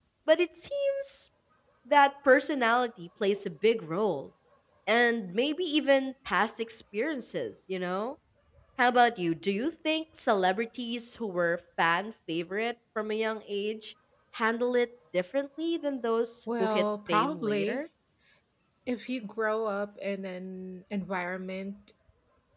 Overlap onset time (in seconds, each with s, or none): 16.5 s